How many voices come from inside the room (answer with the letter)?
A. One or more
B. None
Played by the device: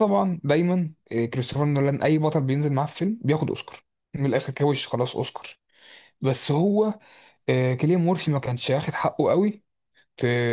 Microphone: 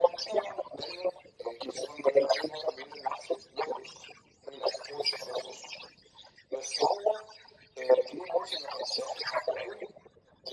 B